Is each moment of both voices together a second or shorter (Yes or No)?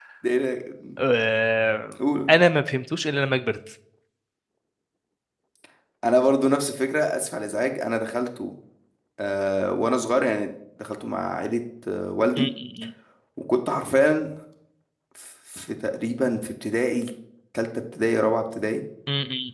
Yes